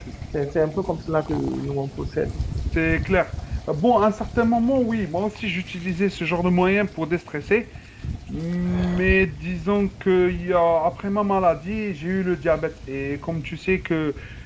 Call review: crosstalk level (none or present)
none